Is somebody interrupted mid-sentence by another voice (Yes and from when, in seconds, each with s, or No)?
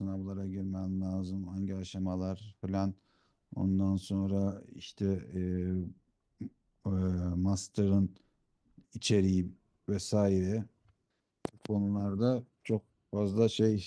No